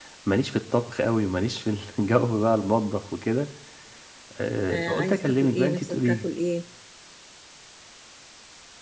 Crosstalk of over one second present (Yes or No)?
Yes